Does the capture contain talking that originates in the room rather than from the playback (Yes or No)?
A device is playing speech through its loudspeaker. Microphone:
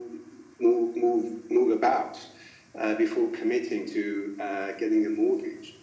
No